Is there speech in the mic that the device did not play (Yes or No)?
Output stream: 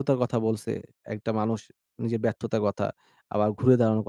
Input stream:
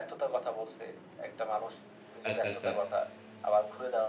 Yes